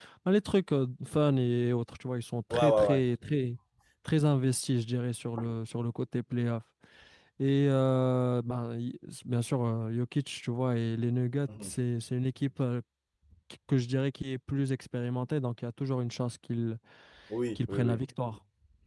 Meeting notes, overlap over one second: none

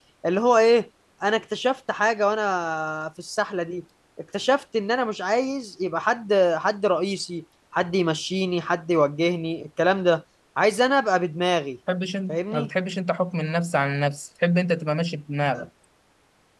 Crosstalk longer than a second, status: none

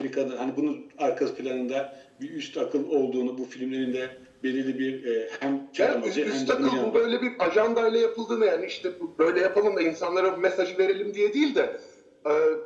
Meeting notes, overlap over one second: present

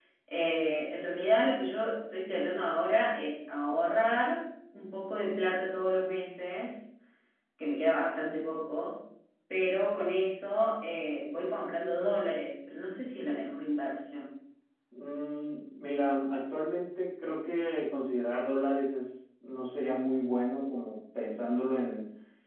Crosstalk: none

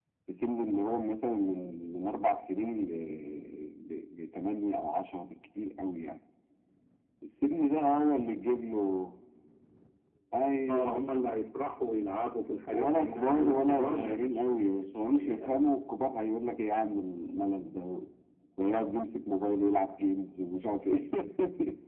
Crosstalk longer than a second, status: present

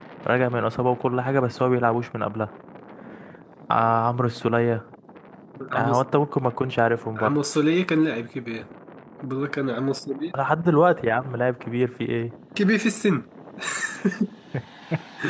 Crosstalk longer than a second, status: none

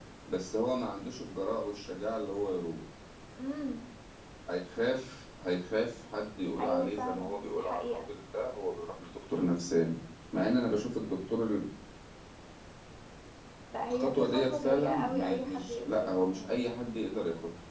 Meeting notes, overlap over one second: present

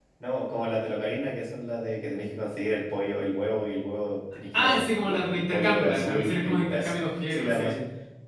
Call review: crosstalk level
present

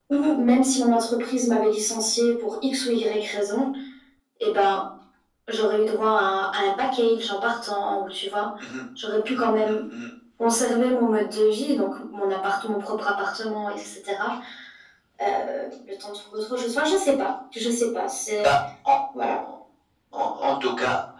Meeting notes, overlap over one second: none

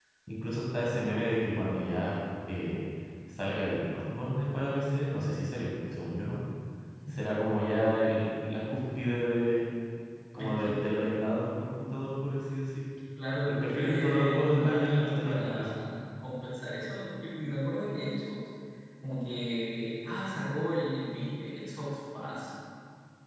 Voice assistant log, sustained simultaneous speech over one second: present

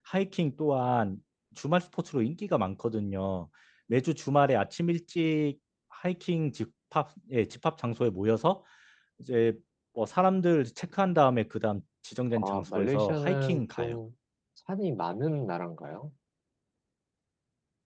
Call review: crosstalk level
present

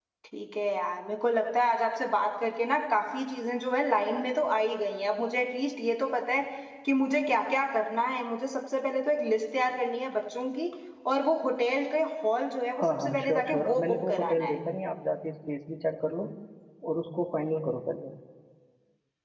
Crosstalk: present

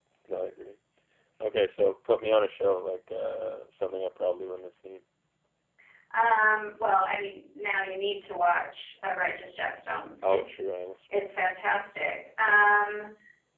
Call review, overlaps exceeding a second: none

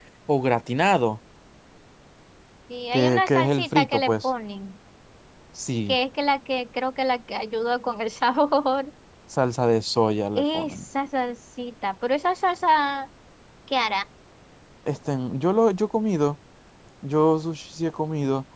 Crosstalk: present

